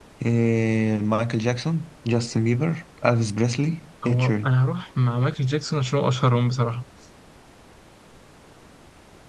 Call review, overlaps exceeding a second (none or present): none